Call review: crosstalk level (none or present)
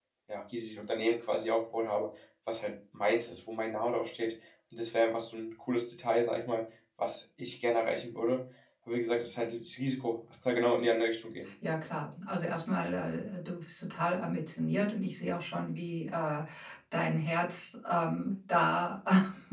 none